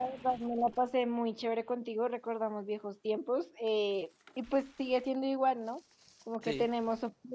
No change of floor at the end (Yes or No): Yes